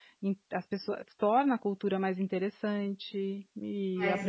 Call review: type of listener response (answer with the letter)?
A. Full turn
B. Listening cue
B